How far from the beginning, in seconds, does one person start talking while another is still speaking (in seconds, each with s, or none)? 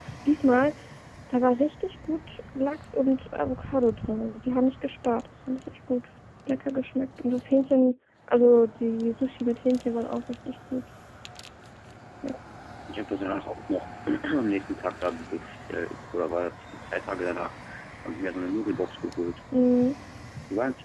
none